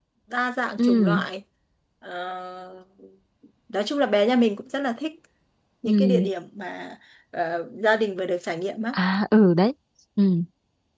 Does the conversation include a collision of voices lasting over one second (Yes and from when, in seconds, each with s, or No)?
No